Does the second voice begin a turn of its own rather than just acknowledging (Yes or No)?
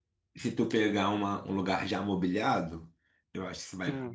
No